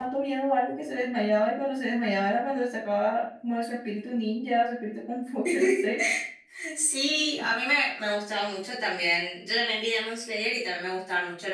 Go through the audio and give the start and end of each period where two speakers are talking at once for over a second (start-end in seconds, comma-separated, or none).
none